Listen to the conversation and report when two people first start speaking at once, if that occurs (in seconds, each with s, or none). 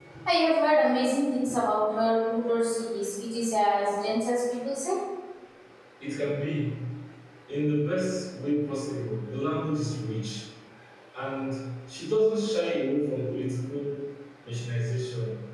none